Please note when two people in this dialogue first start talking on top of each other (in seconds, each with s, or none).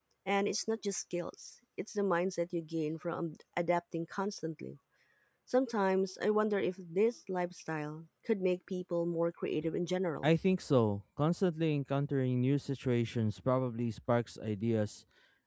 none